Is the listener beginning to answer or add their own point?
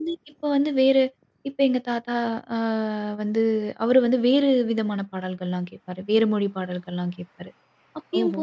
No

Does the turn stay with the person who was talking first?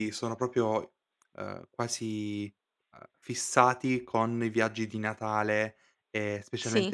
Yes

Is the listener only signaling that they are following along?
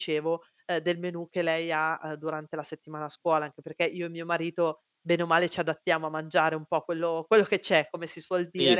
No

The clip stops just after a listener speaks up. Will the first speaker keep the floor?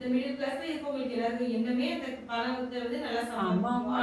No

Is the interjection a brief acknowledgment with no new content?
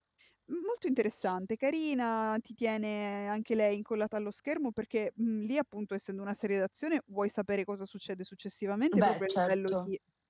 Yes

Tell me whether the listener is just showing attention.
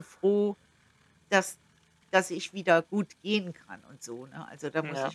No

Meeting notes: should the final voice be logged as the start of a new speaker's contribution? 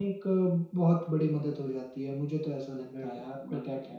Yes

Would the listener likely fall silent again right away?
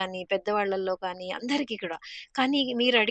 Yes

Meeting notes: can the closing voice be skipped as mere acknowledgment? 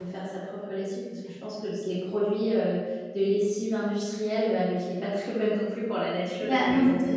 No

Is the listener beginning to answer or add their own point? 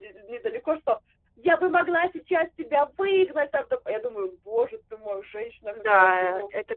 Yes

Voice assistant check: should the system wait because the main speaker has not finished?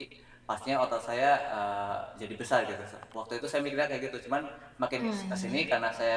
Yes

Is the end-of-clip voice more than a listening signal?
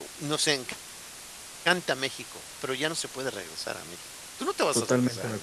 Yes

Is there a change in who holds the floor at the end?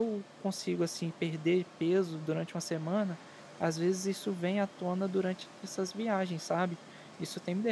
Yes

